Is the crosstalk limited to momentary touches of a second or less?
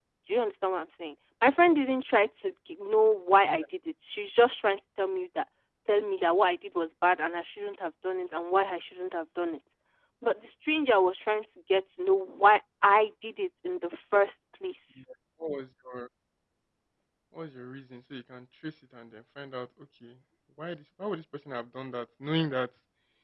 Yes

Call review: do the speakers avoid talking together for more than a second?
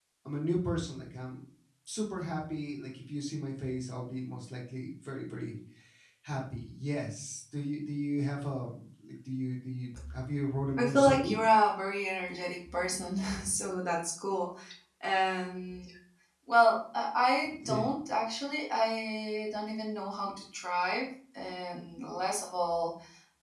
Yes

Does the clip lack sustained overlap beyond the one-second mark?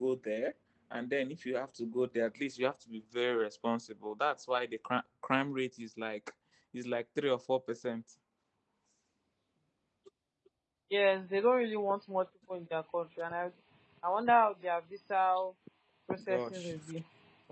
Yes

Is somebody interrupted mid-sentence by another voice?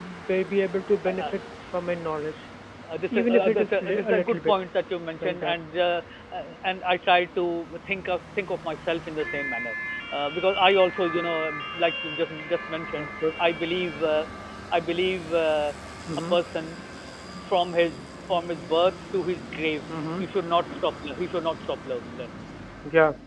Yes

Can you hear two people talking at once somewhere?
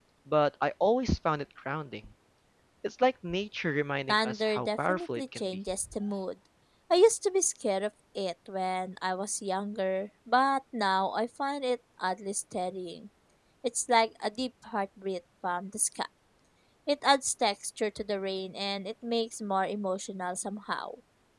Yes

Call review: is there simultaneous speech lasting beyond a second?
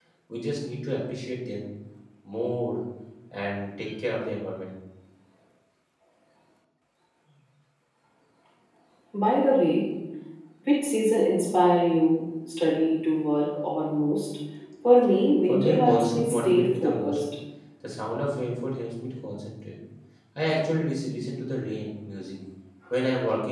Yes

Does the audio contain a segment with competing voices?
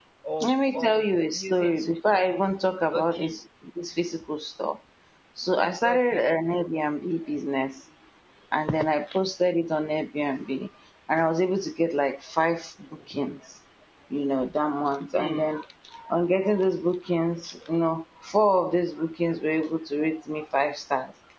Yes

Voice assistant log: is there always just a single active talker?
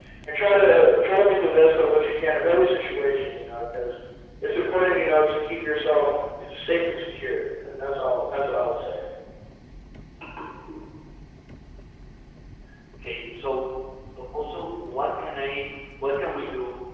Yes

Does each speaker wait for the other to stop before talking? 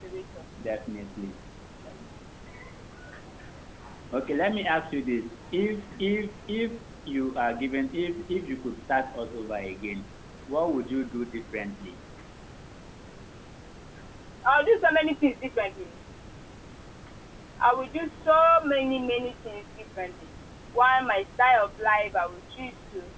Yes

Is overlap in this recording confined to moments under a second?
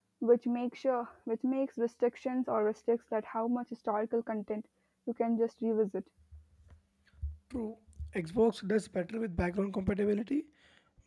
Yes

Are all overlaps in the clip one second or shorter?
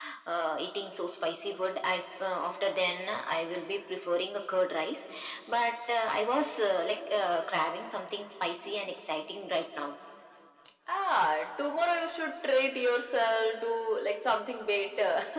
Yes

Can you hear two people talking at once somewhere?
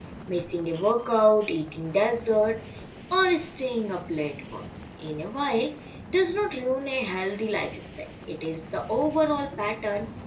No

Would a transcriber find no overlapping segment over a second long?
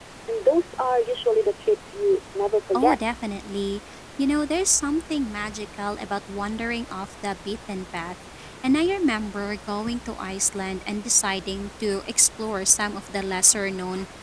Yes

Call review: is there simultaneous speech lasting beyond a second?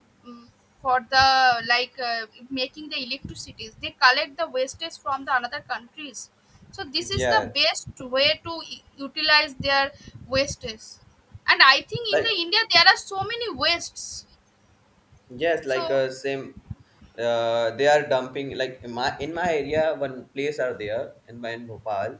No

